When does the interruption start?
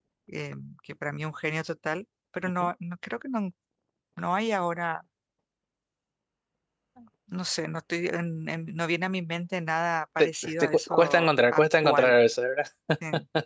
10.2 s

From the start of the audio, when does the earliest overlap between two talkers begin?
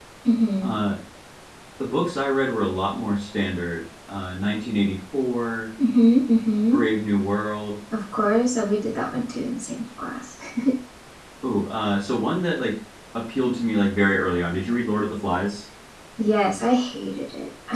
none

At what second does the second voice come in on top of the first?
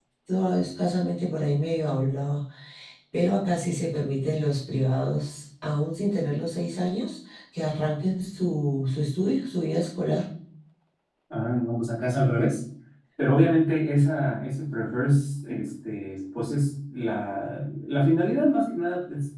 none

